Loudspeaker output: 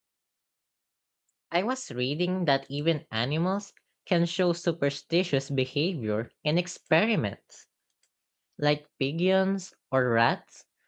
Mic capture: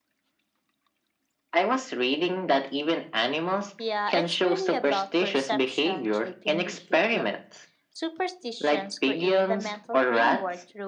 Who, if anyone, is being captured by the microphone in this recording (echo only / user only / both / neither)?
both